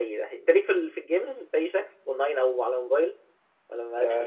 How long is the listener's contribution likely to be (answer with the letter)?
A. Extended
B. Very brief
A